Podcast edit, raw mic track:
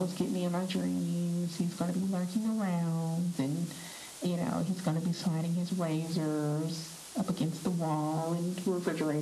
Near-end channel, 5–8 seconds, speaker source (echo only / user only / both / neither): echo only